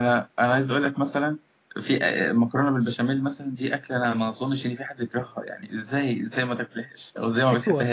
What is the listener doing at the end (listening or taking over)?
taking over